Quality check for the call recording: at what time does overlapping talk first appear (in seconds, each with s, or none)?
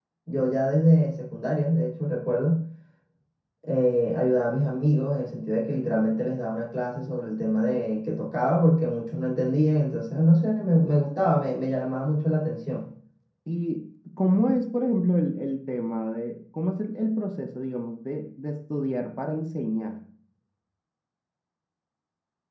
none